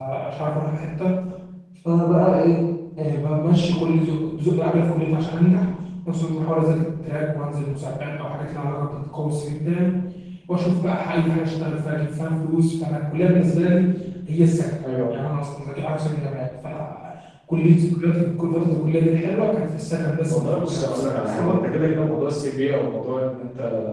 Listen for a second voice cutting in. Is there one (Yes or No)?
Yes